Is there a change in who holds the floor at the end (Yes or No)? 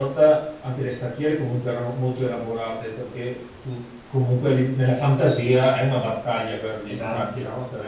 No